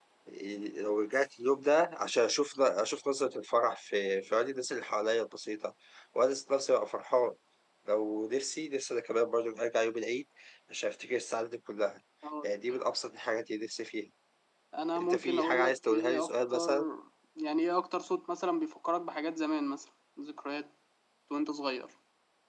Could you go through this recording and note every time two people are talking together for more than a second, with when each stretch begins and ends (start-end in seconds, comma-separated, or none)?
15.0-16.7